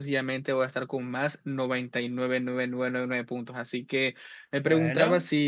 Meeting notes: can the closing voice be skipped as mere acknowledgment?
Yes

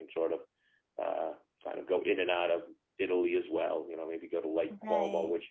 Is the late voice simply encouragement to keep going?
Yes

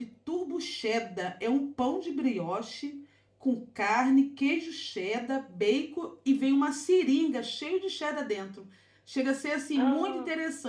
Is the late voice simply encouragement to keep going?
Yes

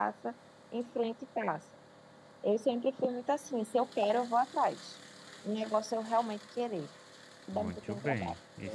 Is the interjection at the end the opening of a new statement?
Yes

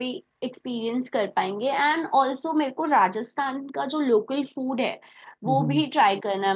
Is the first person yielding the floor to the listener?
No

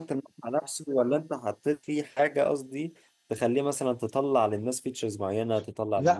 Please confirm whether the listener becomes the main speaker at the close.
Yes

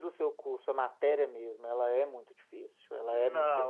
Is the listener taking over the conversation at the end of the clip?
Yes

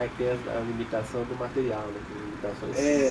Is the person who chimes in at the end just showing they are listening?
No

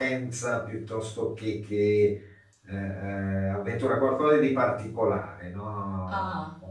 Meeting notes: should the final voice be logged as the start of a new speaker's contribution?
Yes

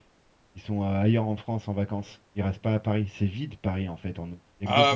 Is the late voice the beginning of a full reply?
Yes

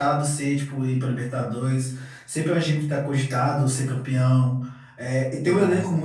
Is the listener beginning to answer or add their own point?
No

